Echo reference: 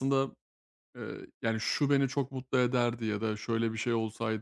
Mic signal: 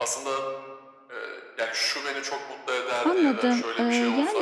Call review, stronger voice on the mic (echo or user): user